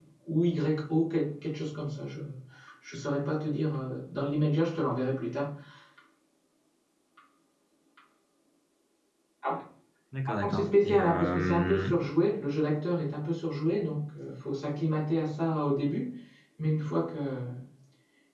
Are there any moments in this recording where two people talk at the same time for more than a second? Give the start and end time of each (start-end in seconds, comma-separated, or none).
10.3-11.8